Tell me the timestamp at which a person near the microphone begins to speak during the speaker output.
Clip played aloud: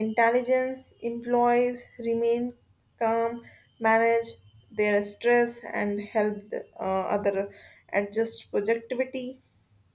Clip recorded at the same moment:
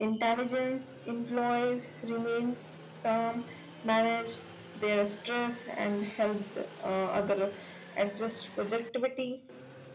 none

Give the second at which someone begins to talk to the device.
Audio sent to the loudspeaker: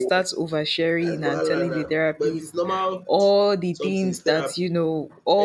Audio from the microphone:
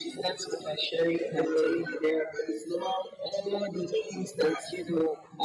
none

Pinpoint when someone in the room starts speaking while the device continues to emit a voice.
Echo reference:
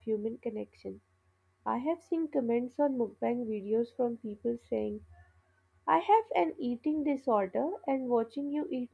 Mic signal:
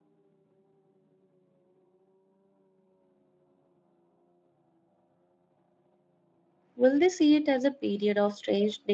6.7 s

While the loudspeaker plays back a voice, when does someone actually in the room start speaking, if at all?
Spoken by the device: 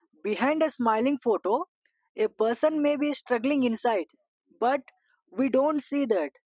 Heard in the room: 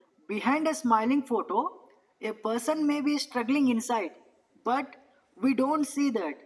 none

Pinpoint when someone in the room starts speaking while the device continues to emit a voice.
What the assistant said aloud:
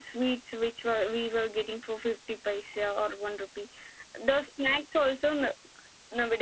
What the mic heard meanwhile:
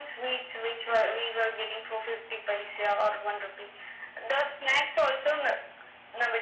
none

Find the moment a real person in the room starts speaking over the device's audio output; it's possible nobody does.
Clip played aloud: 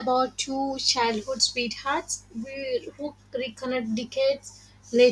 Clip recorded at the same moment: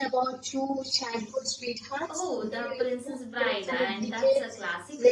2.1 s

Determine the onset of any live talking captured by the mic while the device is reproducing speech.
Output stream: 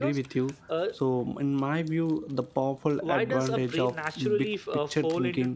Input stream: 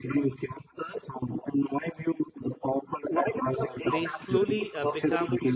3.9 s

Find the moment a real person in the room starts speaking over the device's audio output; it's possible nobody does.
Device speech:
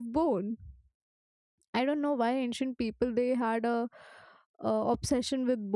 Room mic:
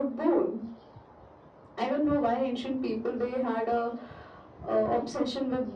none

